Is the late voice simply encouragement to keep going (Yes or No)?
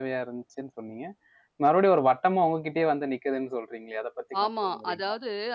No